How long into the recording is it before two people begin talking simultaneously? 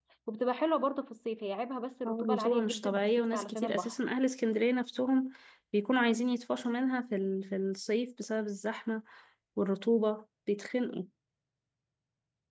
2.0 s

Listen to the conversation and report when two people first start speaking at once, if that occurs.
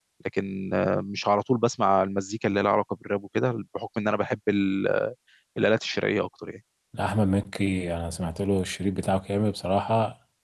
none

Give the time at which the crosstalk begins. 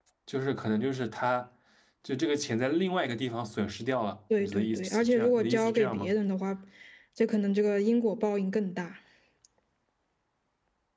4.3 s

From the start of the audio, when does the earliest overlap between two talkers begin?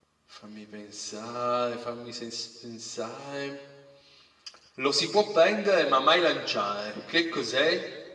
6.2 s

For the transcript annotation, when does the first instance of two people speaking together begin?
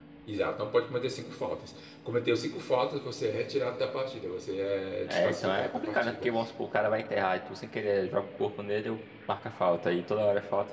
5.1 s

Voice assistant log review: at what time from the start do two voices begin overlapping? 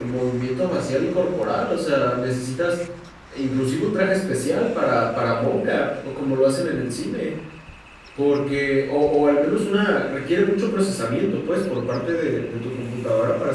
none

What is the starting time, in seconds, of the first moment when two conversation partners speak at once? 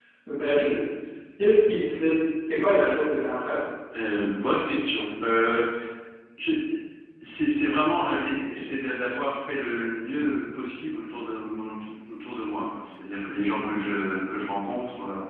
none

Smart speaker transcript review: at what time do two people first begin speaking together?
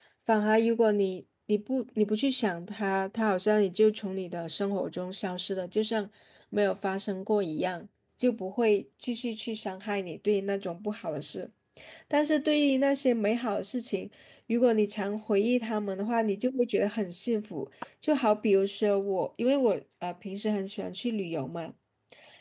none

